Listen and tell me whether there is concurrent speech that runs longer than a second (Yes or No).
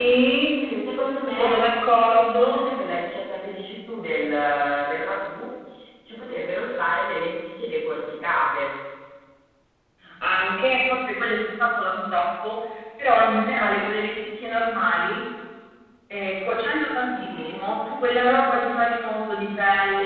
No